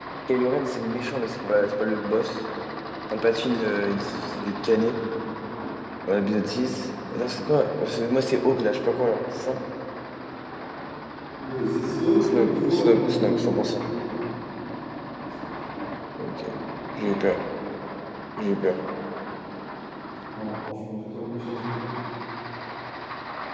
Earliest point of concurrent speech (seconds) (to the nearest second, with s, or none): 12 s